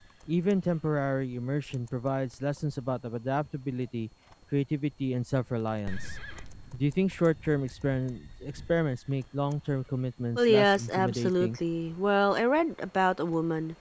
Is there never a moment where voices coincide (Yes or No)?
No